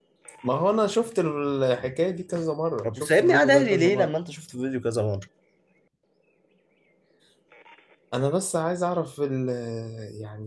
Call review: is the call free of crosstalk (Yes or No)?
No